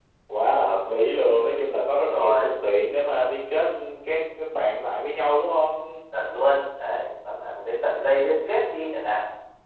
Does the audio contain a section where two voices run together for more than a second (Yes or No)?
No